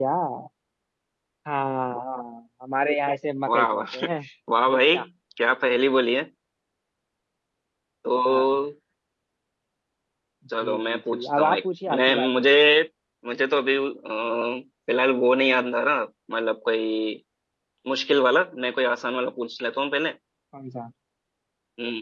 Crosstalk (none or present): present